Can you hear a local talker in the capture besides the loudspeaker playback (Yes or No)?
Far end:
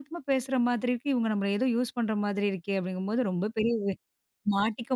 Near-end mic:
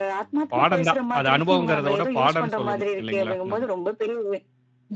Yes